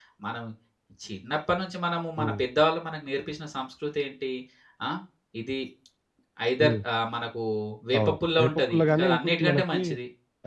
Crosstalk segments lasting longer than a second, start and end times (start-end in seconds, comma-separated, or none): 8.0-9.8